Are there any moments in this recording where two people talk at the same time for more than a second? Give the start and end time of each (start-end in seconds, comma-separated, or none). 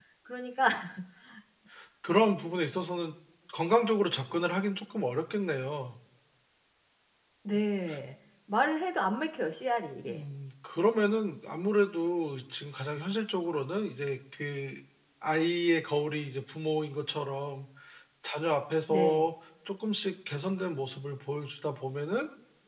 none